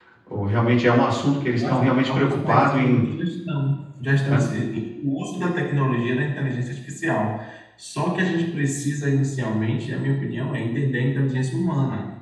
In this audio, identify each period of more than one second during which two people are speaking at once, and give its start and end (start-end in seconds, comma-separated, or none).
1.4-3.0